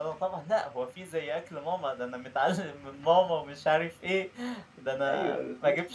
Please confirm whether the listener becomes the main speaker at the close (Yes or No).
Yes